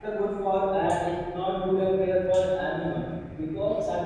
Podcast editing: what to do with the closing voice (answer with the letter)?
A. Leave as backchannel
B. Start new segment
A